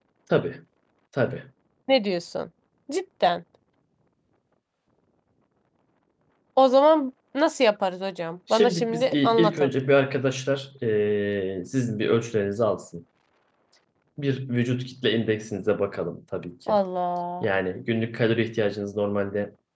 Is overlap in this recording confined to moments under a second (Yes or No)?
No